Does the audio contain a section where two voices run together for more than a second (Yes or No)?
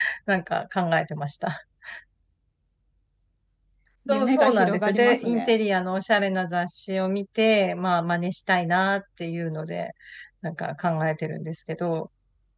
Yes